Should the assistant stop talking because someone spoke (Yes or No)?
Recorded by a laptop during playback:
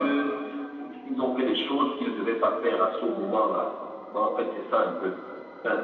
No